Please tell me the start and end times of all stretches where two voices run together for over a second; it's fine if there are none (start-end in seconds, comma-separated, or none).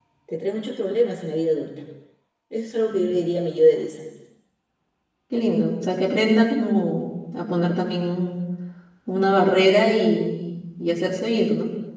none